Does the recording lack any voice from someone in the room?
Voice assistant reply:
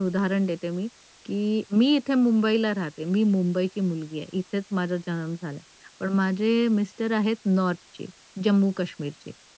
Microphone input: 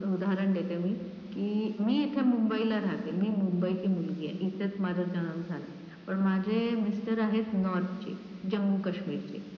Yes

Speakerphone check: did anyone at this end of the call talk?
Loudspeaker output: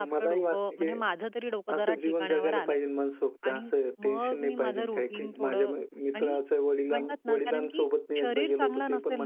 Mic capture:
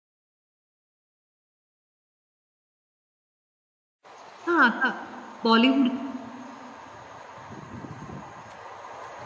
Yes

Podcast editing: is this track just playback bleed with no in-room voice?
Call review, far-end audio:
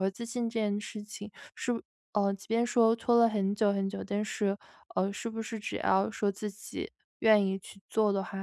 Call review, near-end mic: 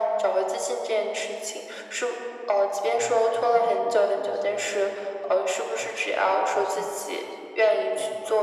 No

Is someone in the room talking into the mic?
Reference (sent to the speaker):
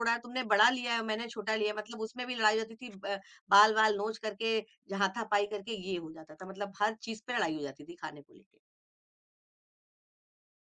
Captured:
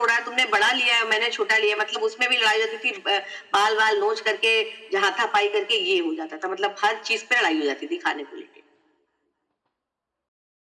No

